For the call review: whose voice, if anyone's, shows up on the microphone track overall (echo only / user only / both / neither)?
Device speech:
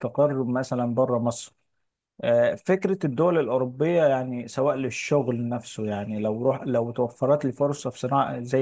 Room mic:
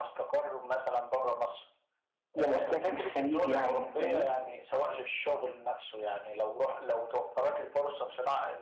both